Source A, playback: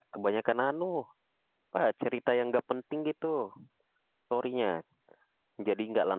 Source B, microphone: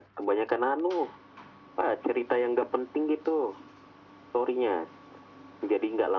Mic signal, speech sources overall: echo only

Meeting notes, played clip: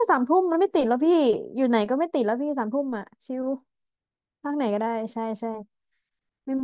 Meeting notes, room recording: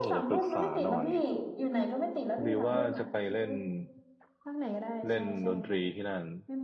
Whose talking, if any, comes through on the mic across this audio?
both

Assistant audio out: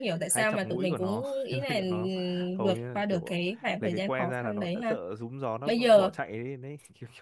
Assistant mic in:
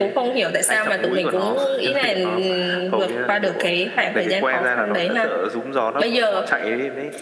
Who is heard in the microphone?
echo only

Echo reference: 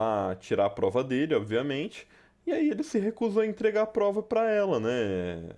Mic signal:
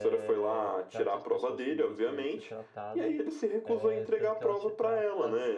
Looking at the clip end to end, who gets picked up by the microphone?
both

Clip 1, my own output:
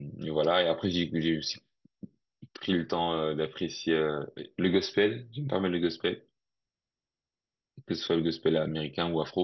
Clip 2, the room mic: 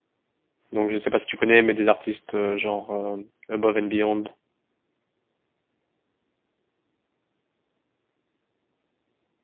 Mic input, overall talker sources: user only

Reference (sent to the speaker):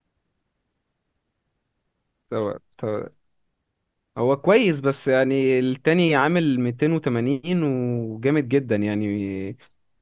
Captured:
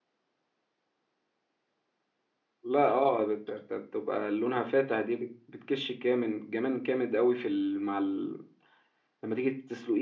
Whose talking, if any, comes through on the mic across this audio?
user only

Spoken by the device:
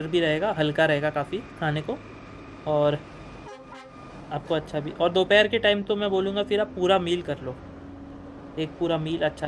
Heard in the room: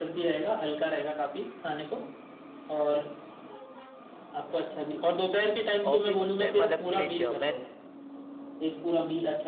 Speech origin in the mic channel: both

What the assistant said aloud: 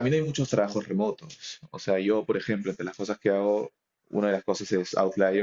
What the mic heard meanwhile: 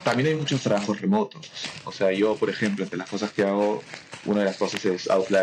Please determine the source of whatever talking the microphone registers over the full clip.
echo only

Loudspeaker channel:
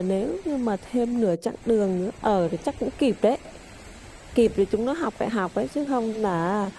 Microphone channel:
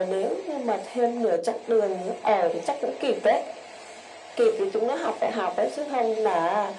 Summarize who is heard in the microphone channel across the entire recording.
echo only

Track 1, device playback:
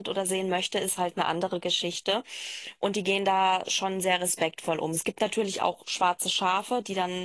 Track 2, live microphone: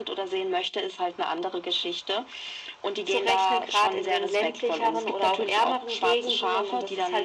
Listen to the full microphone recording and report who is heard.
both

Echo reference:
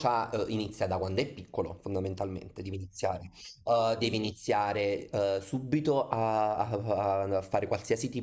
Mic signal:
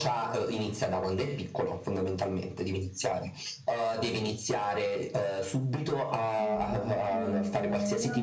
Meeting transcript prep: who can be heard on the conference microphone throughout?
both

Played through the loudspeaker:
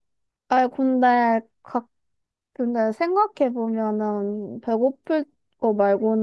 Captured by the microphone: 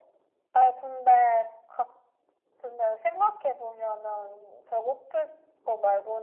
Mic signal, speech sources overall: echo only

